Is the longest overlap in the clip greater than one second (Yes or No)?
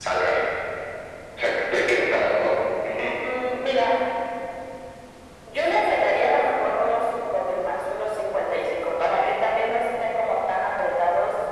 No